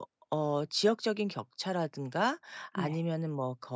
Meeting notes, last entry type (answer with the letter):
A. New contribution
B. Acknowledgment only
B